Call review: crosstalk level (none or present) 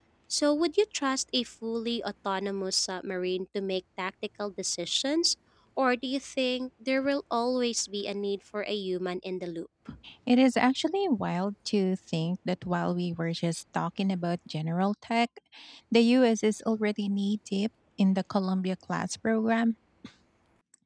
none